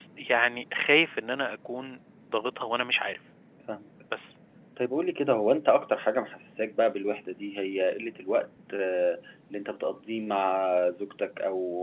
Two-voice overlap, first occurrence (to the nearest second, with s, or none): none